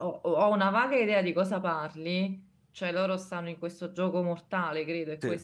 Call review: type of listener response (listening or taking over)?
taking over